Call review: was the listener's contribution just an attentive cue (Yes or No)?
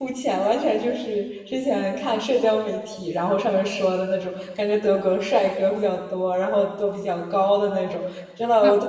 Yes